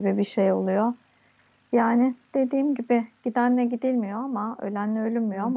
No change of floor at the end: Yes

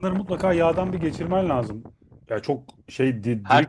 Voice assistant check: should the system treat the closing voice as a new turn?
No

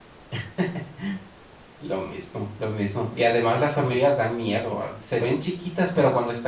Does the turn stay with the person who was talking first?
Yes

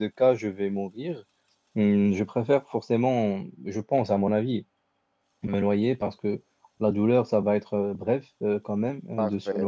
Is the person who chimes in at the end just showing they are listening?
No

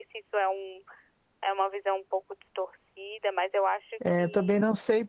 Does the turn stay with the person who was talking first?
No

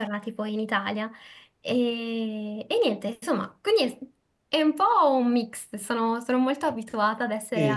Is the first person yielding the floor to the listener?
Yes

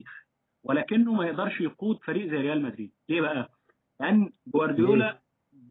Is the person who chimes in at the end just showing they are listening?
Yes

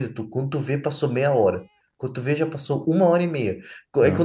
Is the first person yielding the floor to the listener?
No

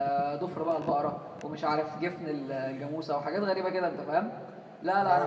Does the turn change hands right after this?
No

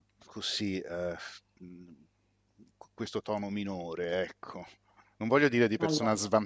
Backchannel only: Yes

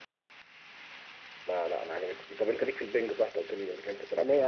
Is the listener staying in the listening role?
No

